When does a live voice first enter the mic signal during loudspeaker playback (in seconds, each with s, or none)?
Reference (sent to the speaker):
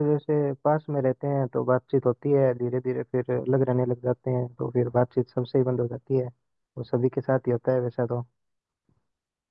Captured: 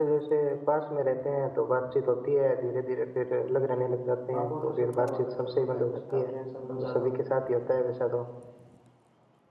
4.3 s